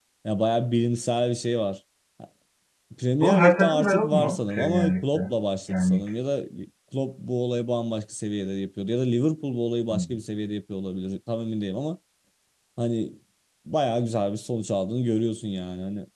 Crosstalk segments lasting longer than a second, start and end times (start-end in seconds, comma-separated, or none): 3.2-5.3